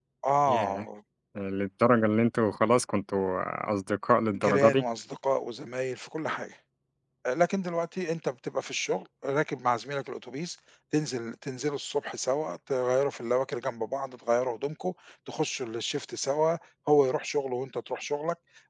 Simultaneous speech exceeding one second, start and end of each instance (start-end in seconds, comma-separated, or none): none